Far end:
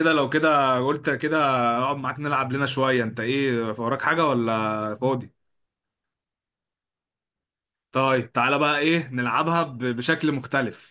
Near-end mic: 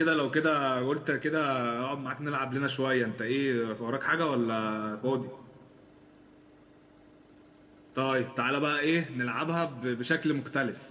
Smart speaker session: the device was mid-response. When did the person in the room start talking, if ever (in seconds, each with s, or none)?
none